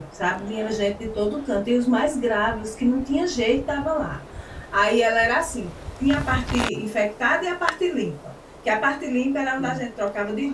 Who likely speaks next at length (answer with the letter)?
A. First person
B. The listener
A